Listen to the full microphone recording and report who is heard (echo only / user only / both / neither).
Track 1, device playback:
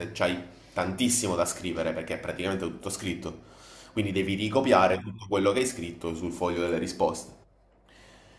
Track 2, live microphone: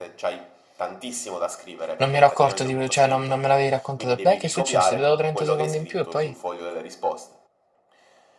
both